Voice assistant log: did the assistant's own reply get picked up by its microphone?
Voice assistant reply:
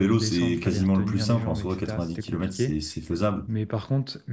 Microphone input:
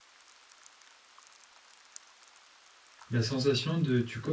No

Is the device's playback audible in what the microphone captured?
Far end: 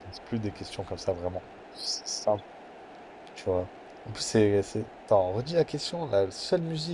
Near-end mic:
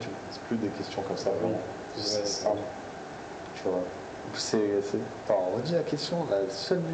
Yes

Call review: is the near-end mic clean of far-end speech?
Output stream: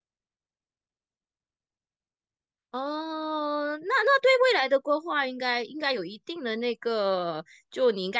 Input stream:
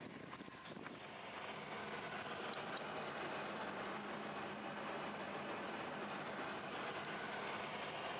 Yes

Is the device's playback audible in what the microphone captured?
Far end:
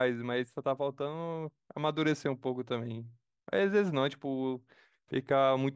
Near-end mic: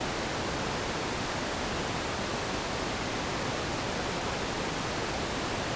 No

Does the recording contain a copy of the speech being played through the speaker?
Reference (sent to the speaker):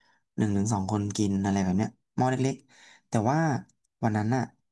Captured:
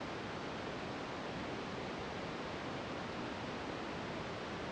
No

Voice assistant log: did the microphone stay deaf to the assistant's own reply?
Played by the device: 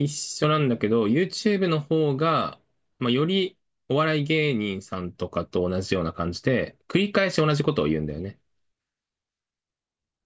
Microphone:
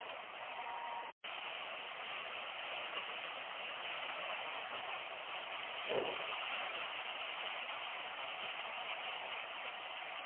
Yes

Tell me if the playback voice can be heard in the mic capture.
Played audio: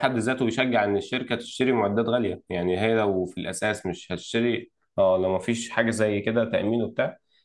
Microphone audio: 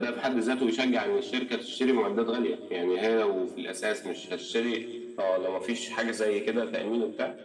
Yes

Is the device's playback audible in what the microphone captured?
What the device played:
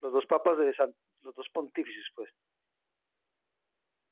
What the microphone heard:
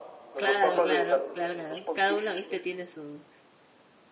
Yes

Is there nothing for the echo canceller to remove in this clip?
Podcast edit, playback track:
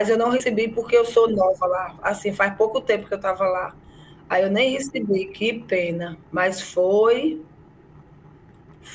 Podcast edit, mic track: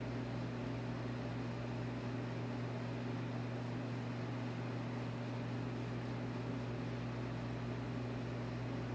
Yes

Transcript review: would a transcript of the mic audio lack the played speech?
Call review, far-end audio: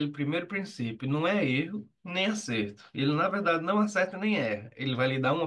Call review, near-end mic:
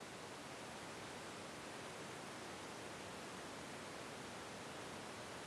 Yes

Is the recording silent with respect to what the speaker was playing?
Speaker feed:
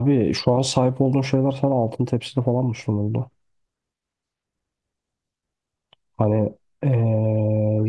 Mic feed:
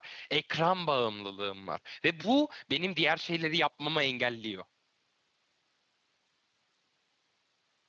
Yes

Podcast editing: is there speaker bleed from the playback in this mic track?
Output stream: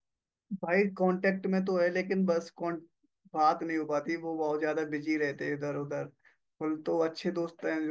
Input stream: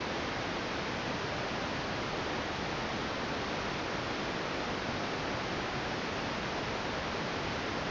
No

